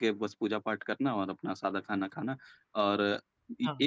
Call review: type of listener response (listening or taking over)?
listening